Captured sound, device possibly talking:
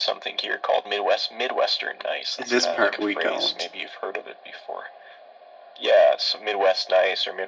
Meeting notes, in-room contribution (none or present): present